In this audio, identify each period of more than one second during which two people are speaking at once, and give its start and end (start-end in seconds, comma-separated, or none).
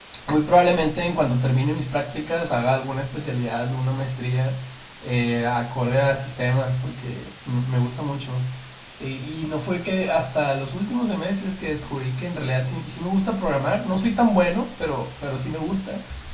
none